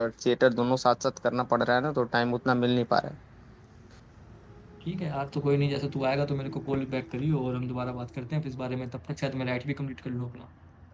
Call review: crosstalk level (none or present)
none